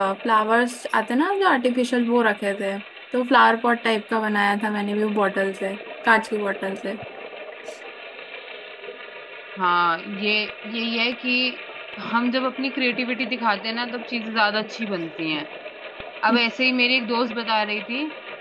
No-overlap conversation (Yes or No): Yes